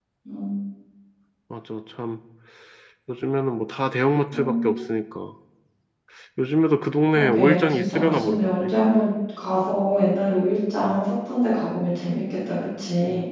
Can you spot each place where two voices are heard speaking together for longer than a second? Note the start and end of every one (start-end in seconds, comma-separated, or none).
7.1-8.7